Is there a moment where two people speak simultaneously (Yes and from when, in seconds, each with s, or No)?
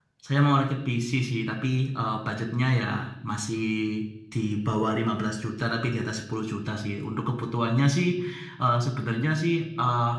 No